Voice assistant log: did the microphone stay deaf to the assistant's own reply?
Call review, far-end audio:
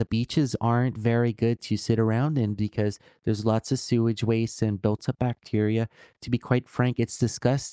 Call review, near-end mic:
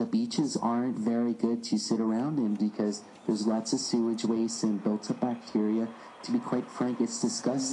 No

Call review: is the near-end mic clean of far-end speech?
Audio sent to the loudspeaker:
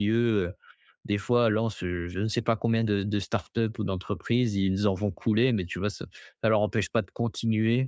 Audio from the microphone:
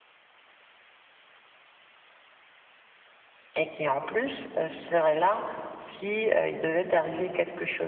Yes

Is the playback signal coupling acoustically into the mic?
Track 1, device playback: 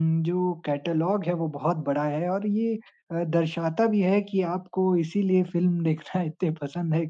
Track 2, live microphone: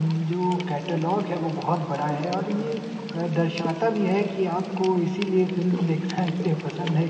Yes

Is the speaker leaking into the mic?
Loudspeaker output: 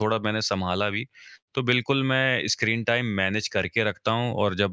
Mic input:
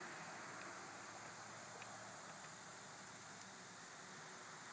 No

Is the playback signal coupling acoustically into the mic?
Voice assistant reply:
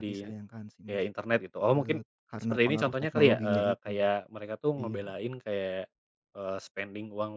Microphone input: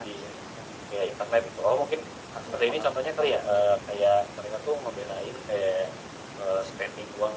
Yes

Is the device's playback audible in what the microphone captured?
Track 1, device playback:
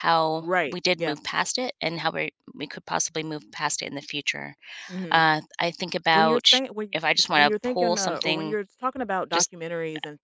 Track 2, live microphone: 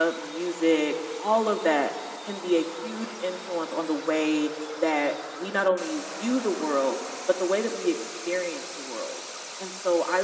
No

